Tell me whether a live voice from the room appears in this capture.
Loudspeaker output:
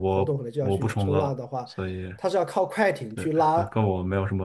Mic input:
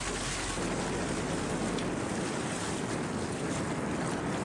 No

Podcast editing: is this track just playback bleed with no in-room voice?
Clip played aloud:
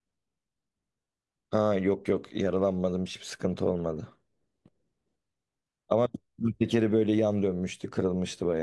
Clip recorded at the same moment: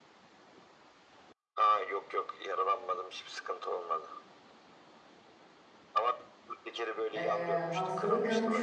No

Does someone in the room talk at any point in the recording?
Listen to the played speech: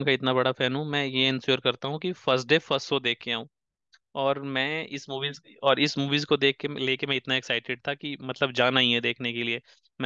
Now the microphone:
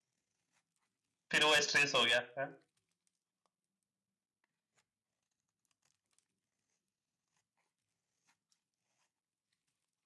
Yes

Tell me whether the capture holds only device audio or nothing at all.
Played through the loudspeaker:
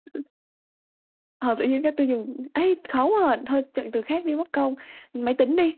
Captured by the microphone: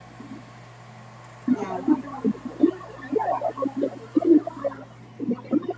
No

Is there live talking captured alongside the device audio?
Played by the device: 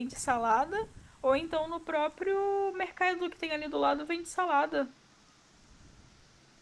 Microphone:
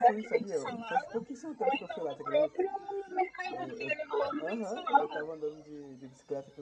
Yes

